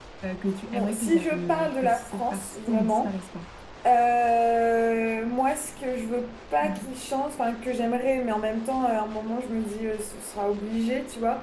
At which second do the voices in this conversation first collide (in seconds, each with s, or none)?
0.7 s